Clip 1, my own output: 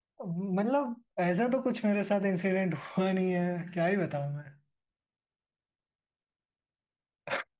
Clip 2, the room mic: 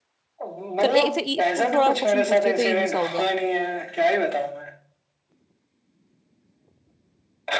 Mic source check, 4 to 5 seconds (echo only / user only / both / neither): echo only